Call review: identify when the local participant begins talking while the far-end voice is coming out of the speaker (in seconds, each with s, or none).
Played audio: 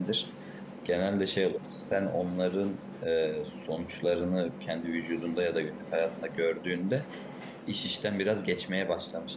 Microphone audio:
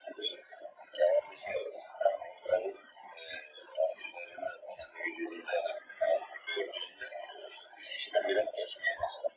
none